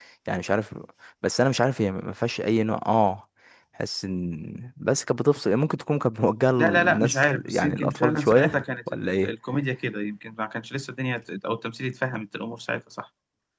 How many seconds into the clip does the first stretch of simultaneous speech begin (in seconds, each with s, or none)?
6.6 s